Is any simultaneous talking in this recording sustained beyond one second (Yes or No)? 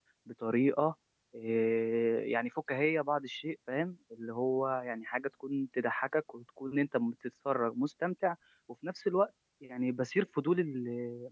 No